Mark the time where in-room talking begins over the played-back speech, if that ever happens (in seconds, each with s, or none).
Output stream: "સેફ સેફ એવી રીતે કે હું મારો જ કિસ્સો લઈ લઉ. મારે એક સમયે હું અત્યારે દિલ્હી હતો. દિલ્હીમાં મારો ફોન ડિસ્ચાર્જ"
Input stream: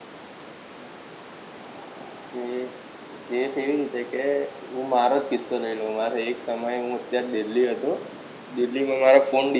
none